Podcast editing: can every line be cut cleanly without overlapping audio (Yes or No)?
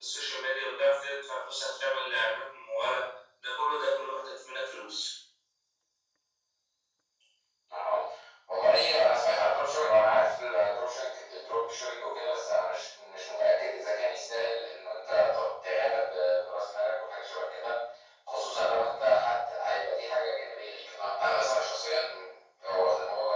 Yes